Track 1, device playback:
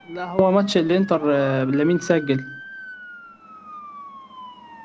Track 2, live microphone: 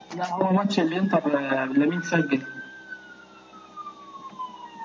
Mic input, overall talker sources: echo only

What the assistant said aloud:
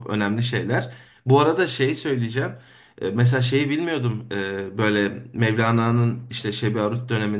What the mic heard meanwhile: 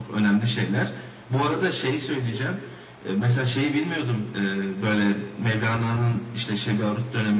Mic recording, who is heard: echo only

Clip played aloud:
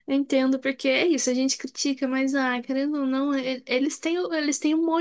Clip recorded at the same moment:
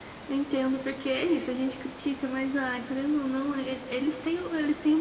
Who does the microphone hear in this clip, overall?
echo only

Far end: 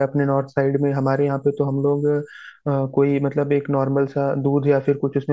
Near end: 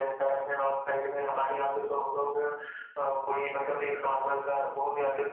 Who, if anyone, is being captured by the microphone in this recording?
echo only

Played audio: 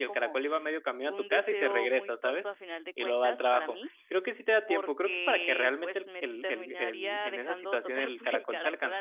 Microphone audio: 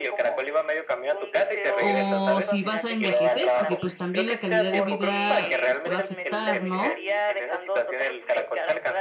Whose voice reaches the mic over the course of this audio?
both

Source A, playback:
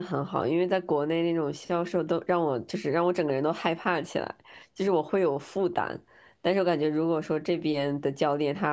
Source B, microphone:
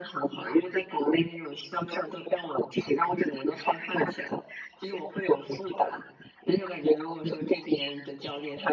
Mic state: echo only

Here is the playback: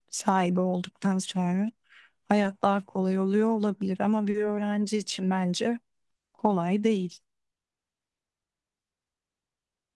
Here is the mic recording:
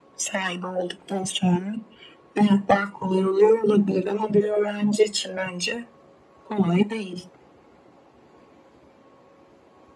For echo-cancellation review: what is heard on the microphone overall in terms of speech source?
echo only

